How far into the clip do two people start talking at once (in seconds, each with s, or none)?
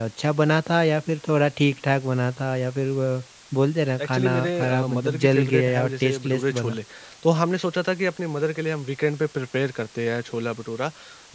4.0 s